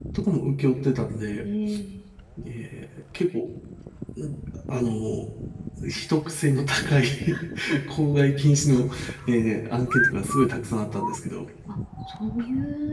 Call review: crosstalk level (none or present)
none